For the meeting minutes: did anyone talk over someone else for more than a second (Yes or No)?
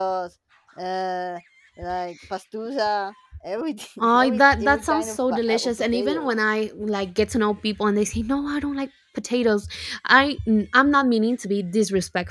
Yes